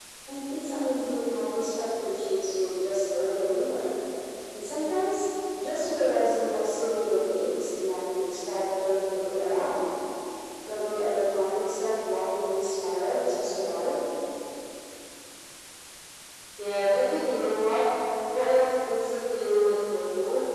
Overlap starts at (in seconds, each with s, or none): none